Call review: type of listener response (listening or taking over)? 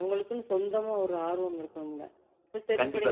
listening